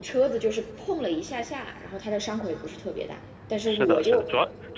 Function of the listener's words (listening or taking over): taking over